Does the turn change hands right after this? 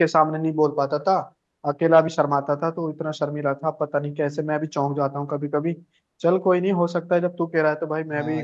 Yes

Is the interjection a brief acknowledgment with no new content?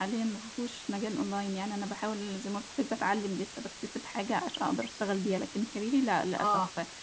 Yes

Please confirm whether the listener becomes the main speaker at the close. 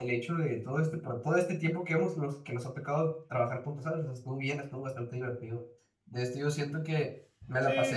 No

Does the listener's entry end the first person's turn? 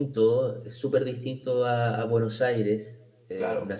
No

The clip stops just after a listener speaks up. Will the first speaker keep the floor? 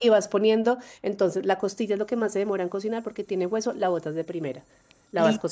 Yes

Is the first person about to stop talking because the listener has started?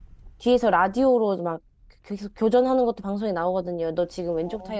No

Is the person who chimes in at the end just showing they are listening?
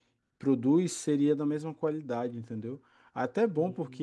Yes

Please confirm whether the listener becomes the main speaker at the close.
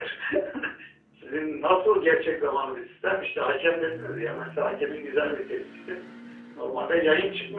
No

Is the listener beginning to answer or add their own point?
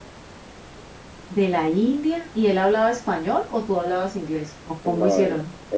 Yes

